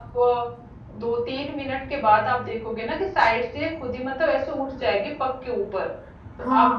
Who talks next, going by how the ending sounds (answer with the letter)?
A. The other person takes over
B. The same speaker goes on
A